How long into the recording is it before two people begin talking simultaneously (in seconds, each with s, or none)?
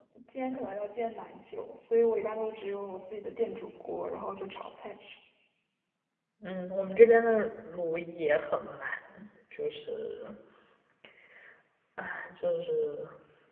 none